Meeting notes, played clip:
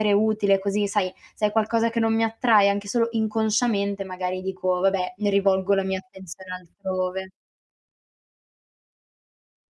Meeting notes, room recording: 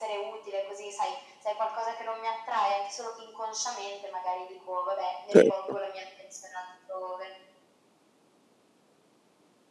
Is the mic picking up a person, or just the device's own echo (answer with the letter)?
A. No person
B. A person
B